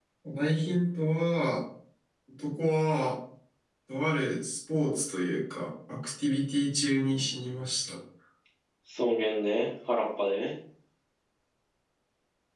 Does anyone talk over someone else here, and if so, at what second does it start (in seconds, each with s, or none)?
none